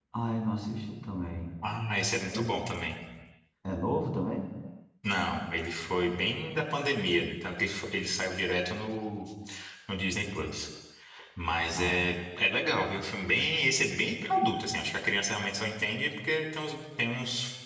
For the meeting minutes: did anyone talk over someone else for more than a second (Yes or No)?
No